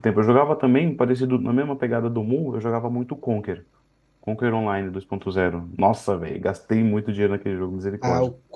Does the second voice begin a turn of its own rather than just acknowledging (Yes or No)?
Yes